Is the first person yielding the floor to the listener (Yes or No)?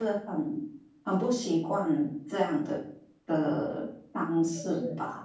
Yes